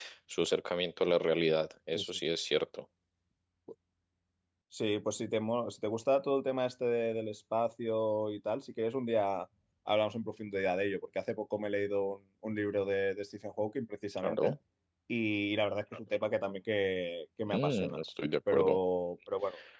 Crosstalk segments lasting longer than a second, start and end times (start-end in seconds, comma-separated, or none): none